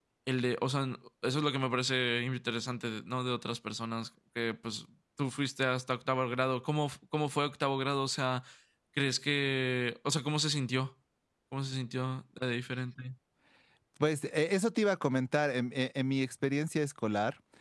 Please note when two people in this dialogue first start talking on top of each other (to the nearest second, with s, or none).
none